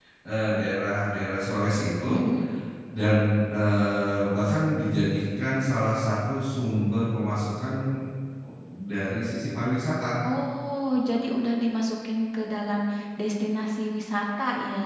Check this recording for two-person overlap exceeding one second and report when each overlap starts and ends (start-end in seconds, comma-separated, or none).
none